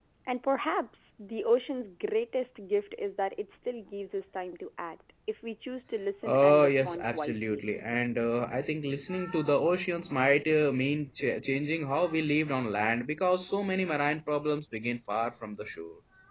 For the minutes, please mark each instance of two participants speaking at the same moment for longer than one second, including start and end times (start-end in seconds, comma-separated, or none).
6.3-7.7